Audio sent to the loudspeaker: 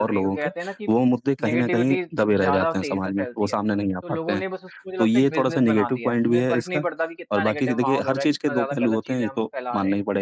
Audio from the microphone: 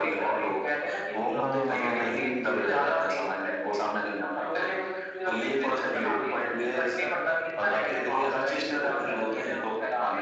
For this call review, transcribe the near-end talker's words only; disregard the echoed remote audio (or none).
हाँ, जी, बिल्कुल, बिल्कुल।